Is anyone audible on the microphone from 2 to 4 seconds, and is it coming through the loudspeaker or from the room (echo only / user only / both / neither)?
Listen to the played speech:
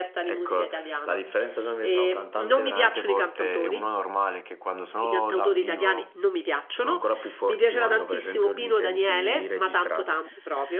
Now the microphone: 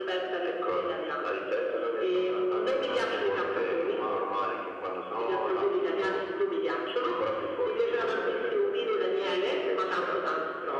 echo only